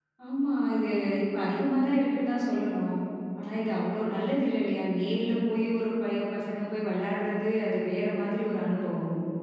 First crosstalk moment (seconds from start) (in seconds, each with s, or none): none